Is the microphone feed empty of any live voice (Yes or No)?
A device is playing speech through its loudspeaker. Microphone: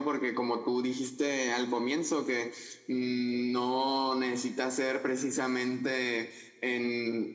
Yes